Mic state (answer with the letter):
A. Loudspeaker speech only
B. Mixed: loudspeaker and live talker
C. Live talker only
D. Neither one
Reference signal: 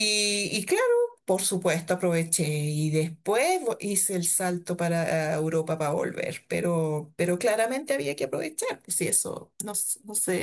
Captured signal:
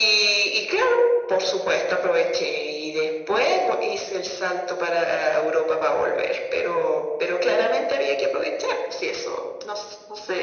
A